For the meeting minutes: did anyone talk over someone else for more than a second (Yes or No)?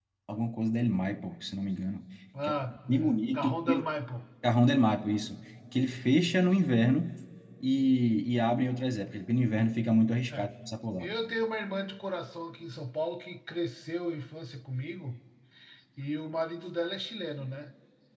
Yes